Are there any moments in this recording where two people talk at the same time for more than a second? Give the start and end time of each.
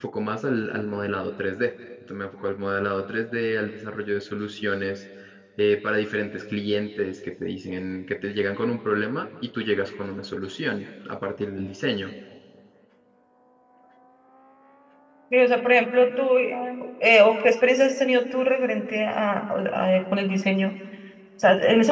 none

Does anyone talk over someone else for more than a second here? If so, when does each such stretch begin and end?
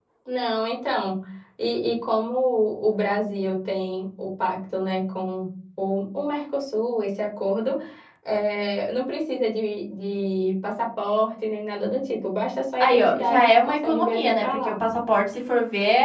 12.8-14.8

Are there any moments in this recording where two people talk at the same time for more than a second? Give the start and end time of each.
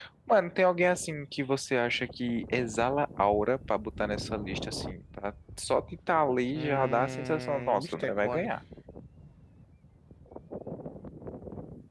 6.5-8.5

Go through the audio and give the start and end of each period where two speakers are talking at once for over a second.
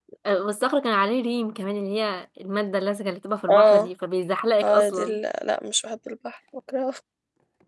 none

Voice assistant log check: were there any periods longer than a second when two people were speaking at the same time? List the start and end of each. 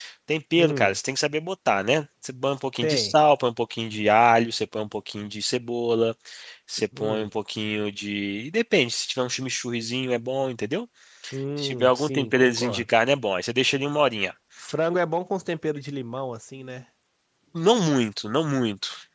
11.6-12.9

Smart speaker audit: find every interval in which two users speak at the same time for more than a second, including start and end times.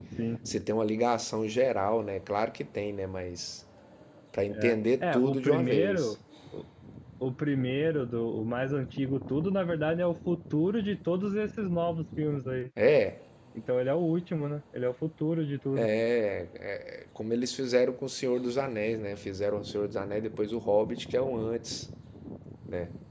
4.5-6.1

